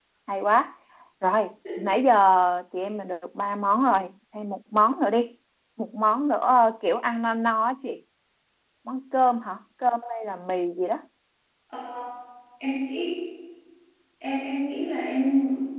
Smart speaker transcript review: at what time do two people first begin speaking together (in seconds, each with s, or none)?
none